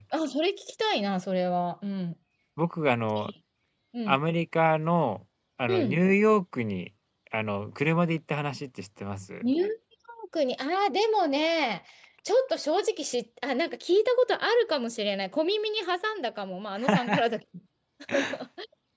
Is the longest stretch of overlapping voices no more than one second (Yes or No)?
Yes